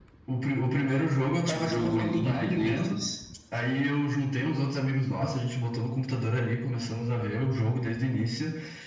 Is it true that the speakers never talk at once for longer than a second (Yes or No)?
No